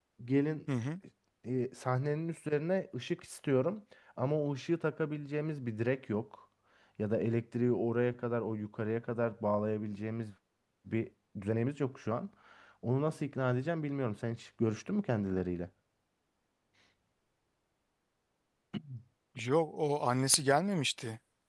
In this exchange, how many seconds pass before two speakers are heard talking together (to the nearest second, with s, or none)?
none